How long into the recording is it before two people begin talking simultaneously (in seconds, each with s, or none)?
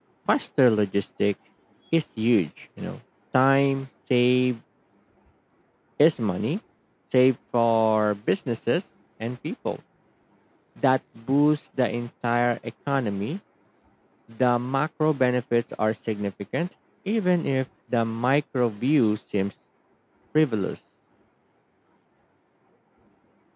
none